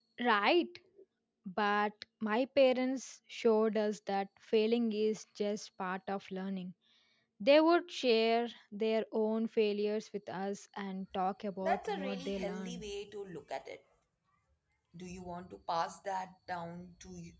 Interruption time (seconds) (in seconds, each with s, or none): 11.6 s